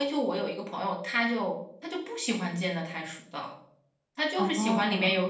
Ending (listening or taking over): listening